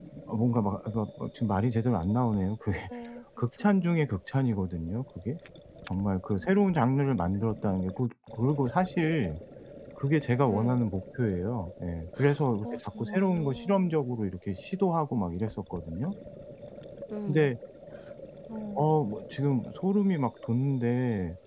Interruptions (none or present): present